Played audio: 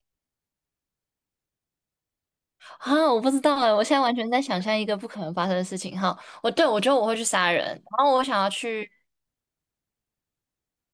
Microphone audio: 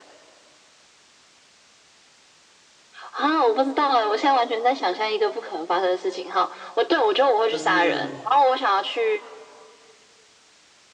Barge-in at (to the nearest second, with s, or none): 7 s